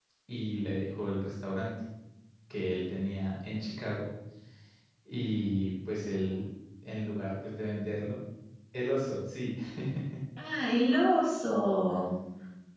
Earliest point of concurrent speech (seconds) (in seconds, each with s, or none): none